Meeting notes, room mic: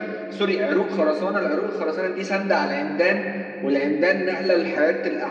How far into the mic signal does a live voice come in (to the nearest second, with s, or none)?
none